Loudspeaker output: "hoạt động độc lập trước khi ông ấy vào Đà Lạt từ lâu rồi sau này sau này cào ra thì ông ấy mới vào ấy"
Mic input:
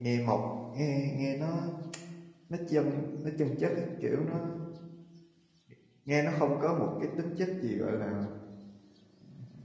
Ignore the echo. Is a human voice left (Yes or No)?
Yes